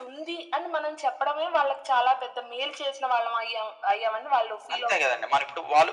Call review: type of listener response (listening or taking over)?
taking over